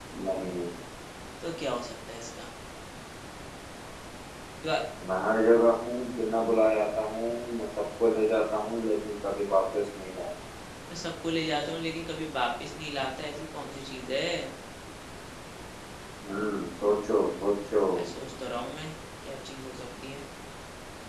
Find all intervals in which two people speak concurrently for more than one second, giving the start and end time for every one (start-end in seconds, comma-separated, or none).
none